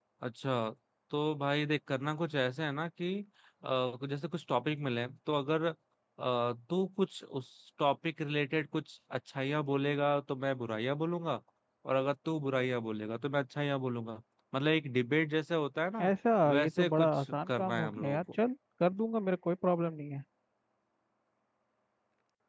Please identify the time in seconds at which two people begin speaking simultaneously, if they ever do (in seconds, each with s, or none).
16.6 s